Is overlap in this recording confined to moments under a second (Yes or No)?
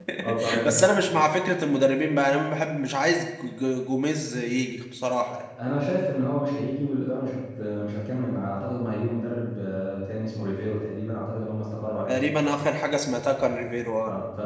Yes